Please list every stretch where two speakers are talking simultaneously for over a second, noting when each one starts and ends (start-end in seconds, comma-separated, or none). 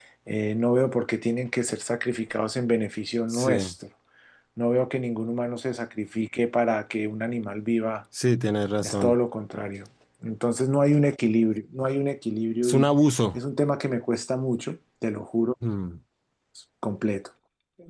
none